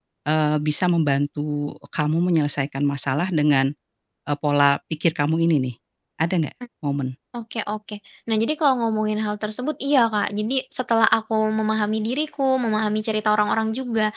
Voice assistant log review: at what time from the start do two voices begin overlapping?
none

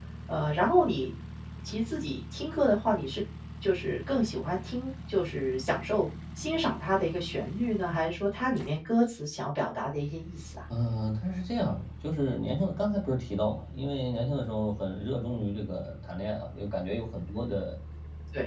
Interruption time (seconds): none

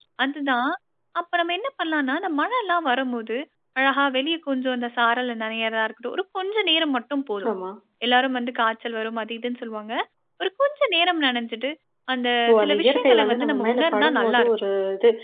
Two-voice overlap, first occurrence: 12.5 s

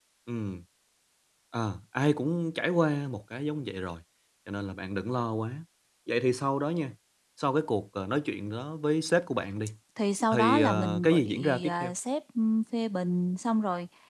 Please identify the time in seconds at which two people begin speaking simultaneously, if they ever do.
10.3 s

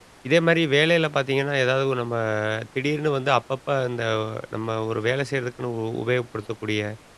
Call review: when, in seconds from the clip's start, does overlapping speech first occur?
none

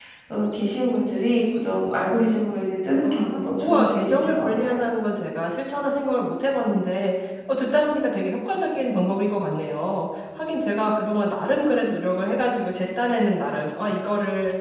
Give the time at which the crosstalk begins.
3.0 s

